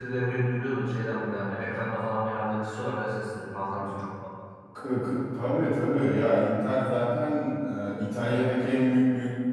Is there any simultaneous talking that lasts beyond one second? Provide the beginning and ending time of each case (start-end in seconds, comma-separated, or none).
none